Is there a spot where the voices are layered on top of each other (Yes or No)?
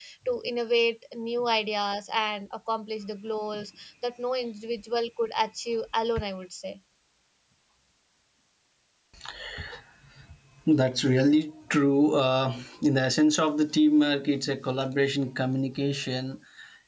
No